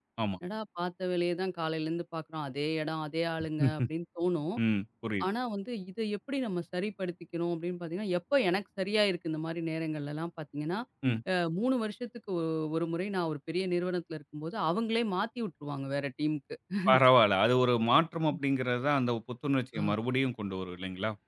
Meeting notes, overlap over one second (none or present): none